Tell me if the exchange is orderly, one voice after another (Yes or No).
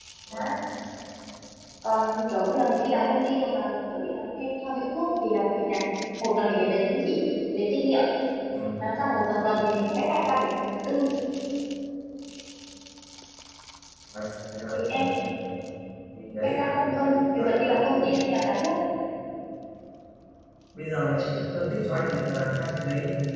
No